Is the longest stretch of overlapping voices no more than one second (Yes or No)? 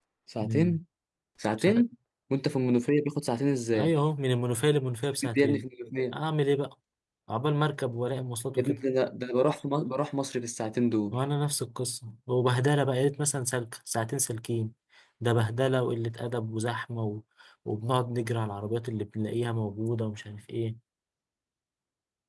Yes